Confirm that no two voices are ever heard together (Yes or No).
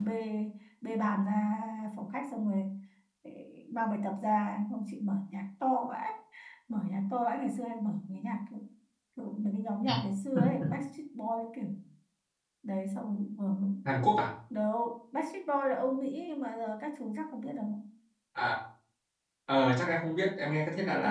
Yes